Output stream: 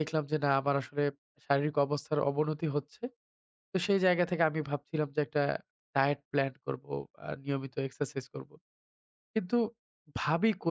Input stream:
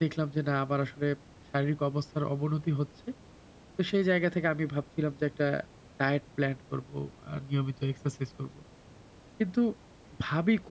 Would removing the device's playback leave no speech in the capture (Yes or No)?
Yes